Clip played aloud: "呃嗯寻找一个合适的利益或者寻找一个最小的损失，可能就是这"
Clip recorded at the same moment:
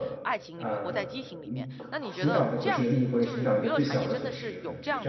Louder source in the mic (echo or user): echo